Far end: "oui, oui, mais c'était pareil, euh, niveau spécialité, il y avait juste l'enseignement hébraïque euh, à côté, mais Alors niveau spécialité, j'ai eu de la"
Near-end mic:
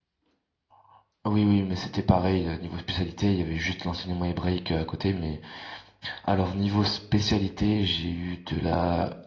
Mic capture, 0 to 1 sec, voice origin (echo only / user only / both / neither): neither